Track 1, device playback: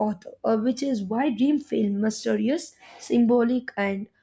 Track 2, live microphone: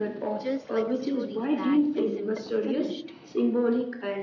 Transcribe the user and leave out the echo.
just like a story that isn't finished.

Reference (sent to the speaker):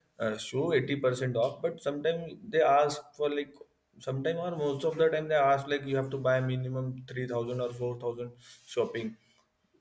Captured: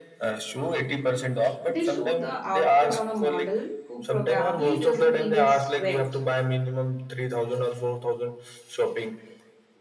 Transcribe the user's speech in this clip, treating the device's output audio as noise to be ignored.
They show the outfit on a model who probably doesn't even sweat.

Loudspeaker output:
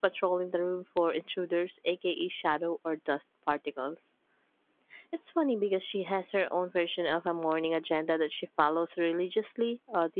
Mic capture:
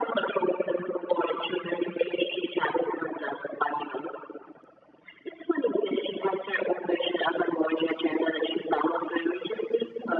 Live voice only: none

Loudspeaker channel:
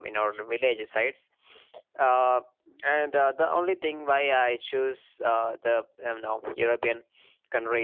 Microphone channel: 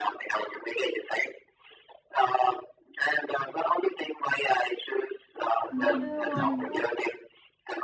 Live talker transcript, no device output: Why do you want to?

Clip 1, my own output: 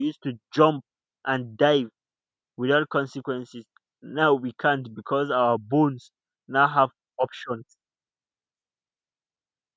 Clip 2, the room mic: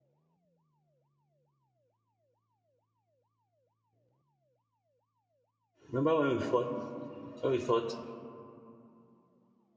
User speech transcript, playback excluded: Remember when we thought when we thought

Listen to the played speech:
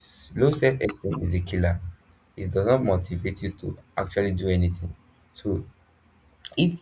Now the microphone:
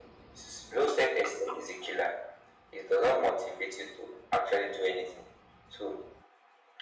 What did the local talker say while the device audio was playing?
none

